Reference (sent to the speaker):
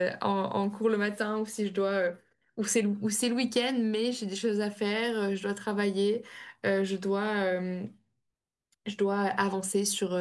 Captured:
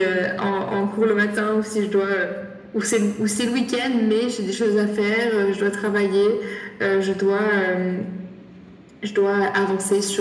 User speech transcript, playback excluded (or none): none